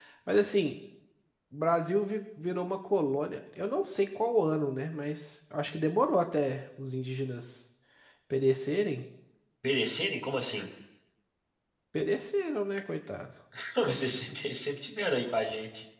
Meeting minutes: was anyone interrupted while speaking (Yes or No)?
No